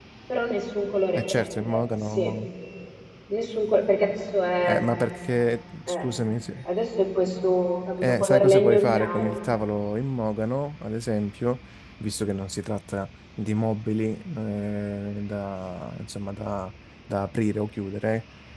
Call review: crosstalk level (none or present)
present